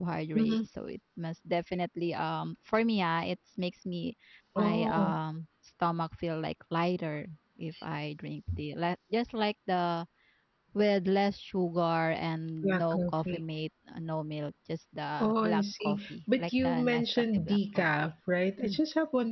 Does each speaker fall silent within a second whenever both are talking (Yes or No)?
No